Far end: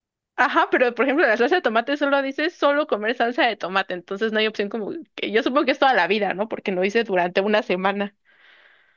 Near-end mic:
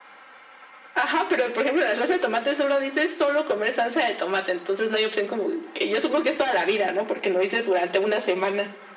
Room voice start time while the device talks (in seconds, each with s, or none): none